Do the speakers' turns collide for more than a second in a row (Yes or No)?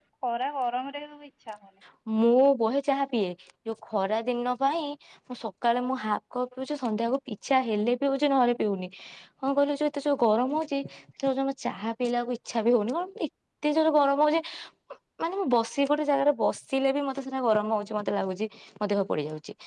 No